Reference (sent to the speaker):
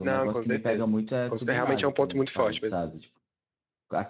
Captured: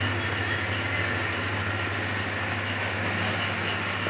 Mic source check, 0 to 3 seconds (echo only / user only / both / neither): neither